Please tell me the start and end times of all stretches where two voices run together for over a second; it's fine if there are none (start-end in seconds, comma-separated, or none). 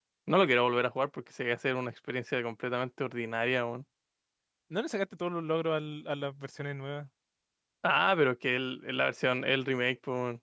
none